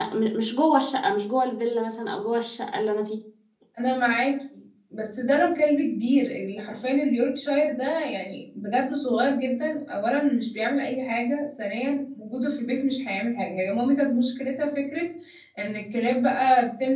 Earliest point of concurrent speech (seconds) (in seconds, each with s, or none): none